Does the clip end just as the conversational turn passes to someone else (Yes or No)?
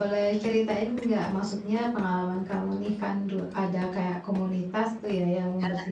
No